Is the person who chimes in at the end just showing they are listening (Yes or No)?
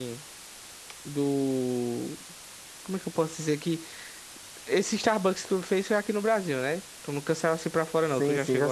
No